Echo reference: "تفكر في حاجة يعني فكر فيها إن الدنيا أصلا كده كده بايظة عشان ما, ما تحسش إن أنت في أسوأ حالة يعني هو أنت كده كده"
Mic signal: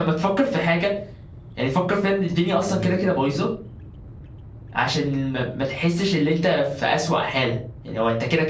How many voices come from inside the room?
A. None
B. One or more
B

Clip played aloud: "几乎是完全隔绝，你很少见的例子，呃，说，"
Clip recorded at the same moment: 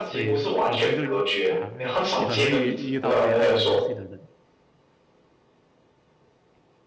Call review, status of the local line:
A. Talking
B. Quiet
A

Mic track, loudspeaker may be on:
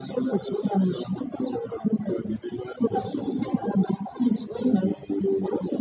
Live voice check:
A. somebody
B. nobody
B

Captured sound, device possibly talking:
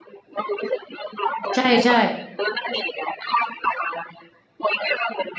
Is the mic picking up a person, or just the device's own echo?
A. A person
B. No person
A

